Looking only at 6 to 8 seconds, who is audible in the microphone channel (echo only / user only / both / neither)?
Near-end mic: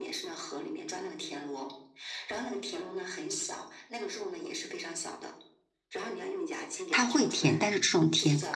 both